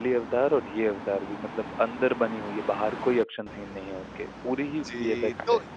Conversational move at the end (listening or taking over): taking over